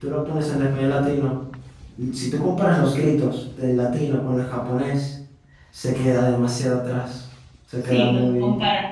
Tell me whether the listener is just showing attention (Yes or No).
No